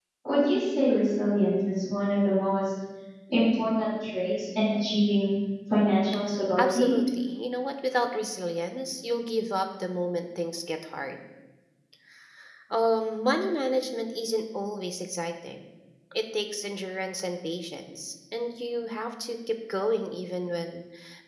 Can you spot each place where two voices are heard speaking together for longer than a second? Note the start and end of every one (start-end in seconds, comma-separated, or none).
none